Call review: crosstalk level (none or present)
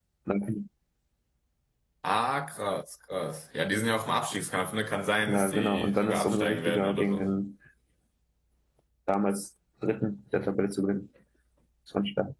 present